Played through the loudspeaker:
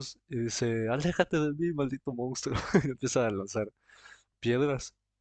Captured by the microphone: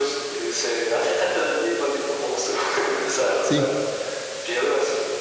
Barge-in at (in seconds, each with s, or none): 3.4 s